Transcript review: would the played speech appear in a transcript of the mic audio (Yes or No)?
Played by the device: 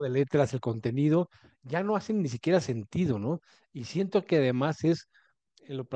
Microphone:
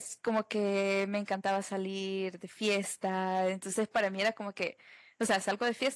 No